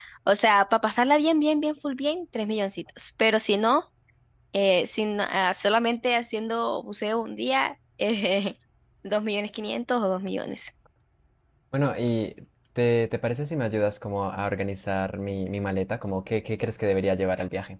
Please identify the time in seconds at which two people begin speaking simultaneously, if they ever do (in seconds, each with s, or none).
none